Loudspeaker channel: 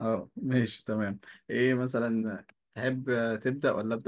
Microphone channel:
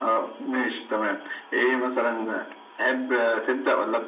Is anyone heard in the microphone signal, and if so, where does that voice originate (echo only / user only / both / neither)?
echo only